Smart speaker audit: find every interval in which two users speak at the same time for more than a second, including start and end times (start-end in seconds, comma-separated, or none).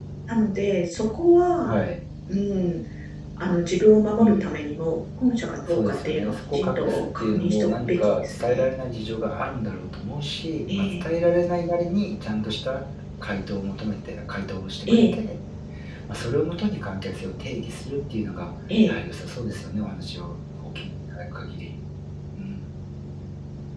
5.7-8.7